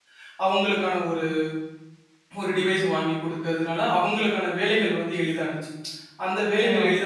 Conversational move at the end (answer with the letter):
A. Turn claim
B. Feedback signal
B